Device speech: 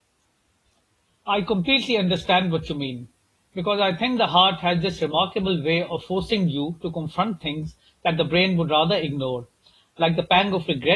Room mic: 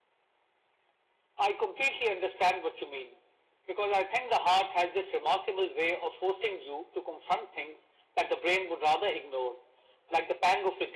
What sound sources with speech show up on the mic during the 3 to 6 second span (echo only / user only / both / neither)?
echo only